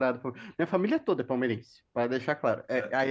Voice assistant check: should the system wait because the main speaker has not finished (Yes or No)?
Yes